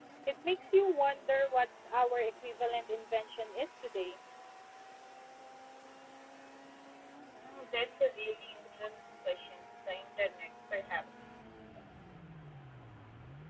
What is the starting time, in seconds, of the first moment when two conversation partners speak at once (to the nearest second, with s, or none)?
none